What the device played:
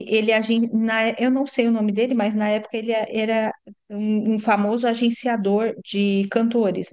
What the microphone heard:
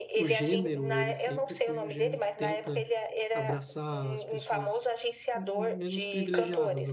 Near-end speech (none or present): present